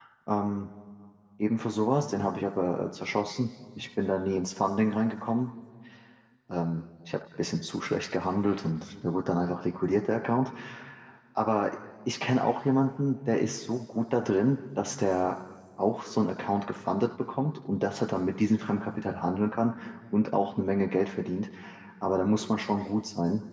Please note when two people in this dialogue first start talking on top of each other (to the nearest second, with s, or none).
none